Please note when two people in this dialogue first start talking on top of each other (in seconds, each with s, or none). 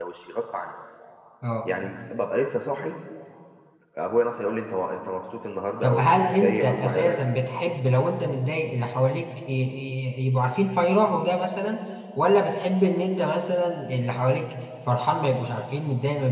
5.8 s